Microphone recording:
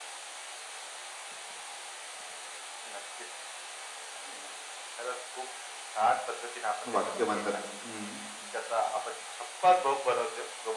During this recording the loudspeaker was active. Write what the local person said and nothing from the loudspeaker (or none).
वाक्य म्हणतात हम्म,